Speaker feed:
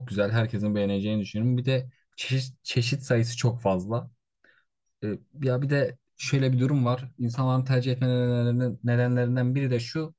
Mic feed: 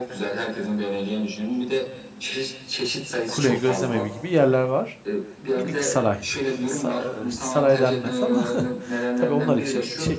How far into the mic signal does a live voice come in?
3.3 s

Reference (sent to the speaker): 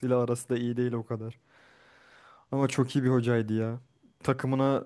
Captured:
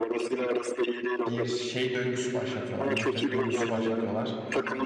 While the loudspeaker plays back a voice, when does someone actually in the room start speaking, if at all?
1.2 s

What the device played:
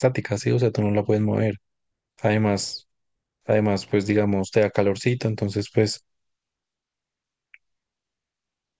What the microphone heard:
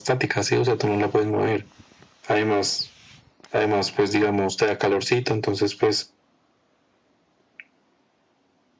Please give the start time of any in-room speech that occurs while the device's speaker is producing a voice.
none

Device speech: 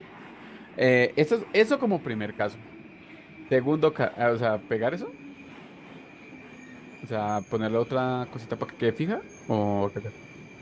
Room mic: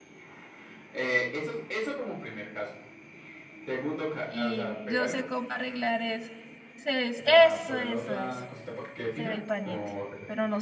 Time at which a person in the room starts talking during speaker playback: 4.2 s

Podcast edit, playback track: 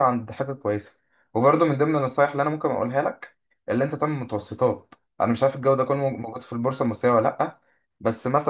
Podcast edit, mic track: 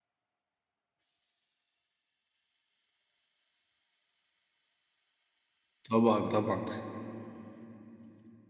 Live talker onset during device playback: 5.9 s

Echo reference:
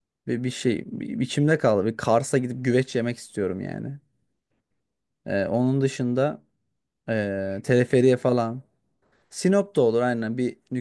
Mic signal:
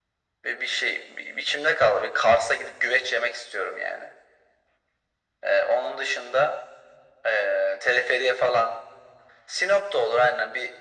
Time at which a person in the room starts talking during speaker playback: none

